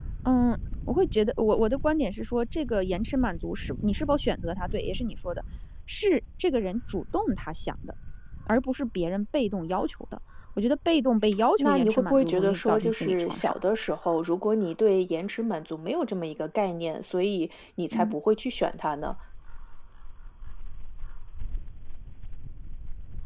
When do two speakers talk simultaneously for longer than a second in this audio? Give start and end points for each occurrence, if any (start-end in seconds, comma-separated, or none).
11.6-13.5